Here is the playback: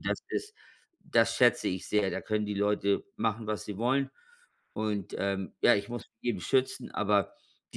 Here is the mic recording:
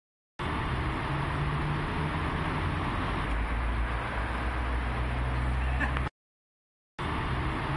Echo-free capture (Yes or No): Yes